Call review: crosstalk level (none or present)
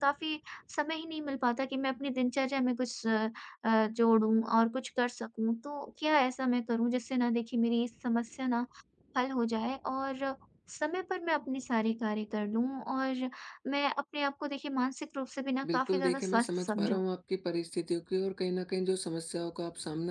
present